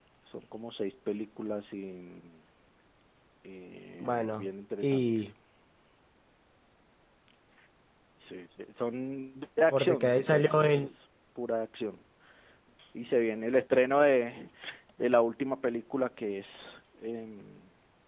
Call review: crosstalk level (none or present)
present